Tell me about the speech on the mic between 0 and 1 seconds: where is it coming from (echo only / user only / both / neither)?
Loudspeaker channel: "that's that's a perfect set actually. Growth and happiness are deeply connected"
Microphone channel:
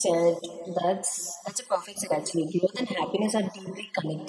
echo only